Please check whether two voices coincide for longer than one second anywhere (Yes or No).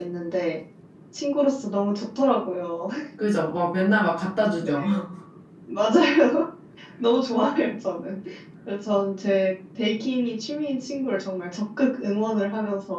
No